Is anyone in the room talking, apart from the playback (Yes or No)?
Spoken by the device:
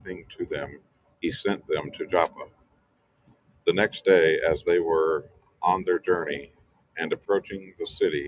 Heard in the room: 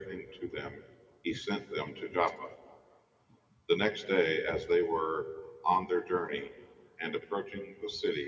No